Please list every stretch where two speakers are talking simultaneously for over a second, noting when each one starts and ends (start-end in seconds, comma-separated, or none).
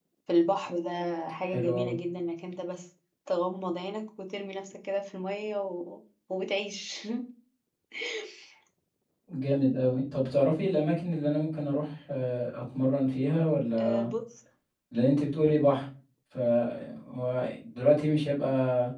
none